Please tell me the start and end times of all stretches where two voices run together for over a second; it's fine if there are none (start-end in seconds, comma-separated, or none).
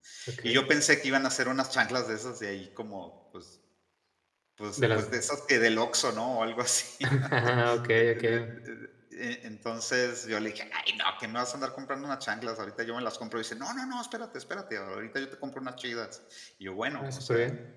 none